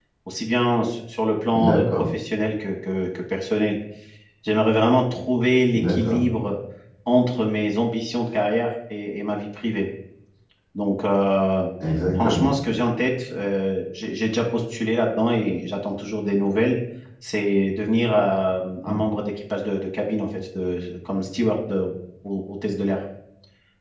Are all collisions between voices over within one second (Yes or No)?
Yes